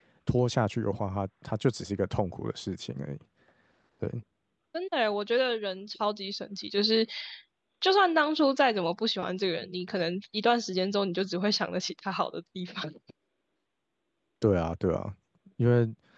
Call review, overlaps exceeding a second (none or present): none